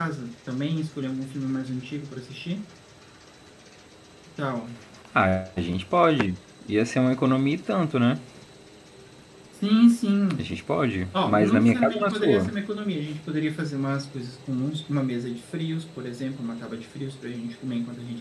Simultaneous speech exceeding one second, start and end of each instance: 11.2-12.5

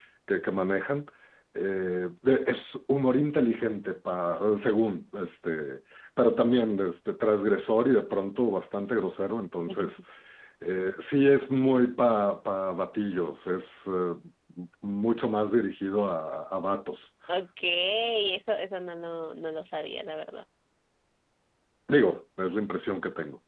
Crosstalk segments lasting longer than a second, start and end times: none

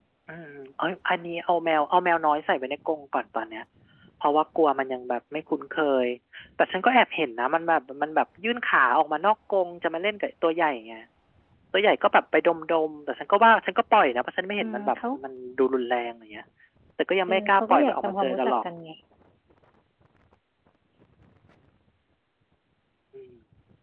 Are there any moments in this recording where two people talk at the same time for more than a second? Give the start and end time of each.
17.3-18.5

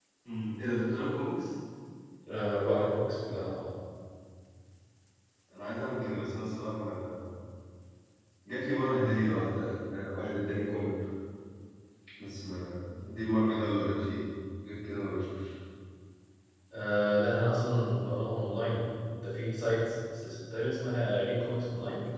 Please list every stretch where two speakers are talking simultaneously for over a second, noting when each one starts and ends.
none

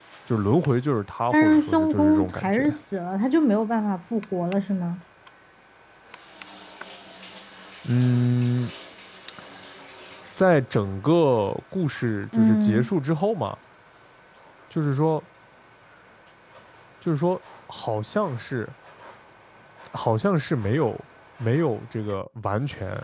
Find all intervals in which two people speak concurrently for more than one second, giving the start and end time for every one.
1.3-2.6

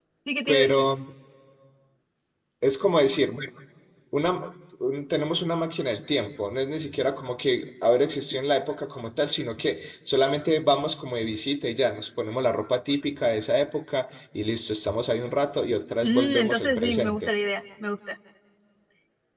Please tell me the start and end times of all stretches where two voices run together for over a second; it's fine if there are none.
16.0-17.3

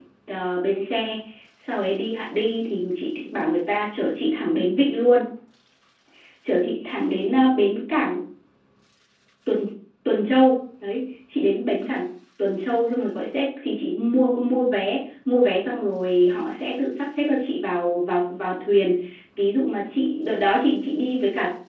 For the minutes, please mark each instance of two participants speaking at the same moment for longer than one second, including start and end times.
none

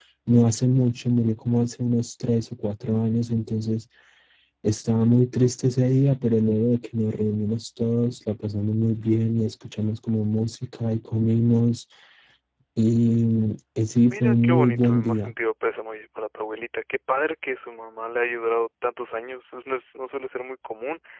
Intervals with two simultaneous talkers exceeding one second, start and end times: 14.1-15.3

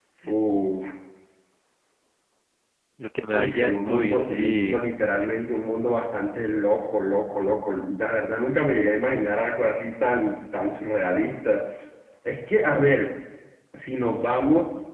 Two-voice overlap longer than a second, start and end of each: 3.4-4.8

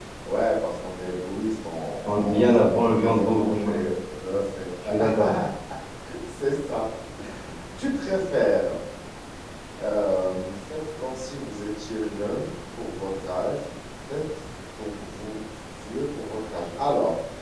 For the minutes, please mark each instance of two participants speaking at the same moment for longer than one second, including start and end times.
2.1-3.9

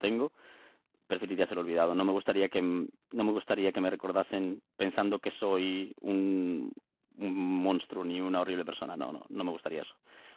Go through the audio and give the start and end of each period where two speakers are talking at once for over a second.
none

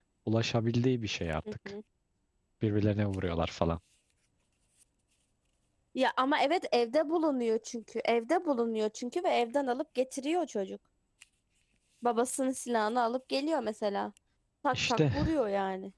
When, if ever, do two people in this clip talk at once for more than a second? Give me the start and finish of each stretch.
none

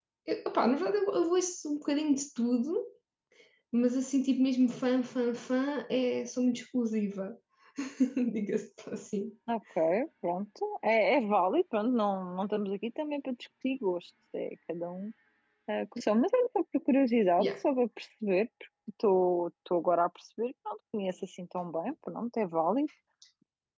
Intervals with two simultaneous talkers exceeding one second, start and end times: none

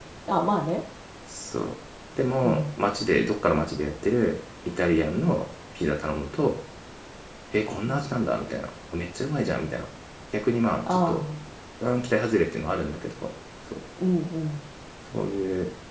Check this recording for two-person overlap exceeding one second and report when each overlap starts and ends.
none

